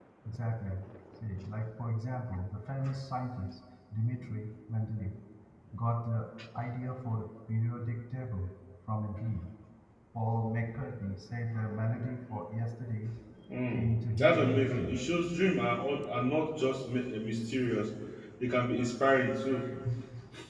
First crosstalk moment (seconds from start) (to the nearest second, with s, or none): 14 s